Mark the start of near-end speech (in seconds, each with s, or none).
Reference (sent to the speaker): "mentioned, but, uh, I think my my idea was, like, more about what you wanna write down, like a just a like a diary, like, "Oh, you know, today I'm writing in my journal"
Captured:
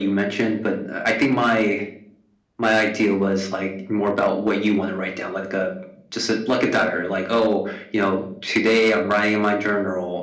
none